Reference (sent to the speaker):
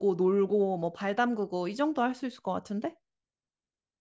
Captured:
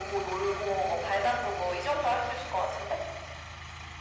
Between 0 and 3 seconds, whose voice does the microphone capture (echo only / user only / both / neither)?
echo only